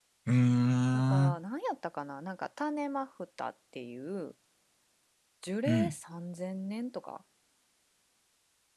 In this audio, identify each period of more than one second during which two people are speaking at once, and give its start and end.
none

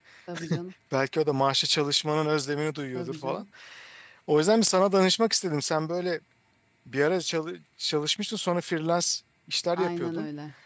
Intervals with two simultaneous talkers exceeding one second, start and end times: none

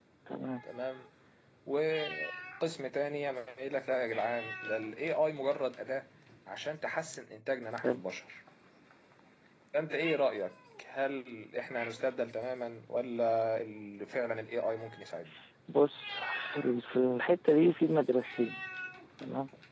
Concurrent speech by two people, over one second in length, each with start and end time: none

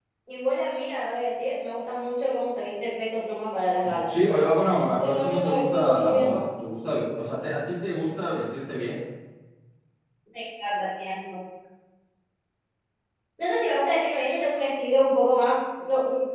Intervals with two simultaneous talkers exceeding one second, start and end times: 5.0-6.4

